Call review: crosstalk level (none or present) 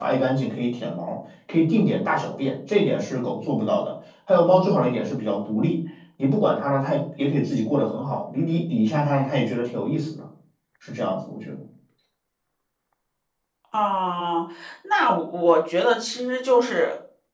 none